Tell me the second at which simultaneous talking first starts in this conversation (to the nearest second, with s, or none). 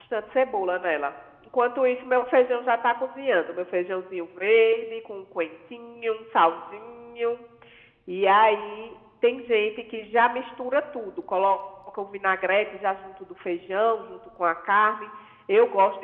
none